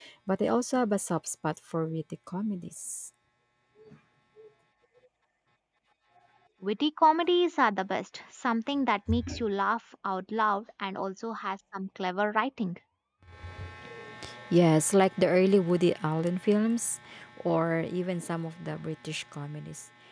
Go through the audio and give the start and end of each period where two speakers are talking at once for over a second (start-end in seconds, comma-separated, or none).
none